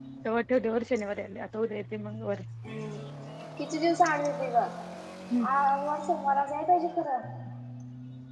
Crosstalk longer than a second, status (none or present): none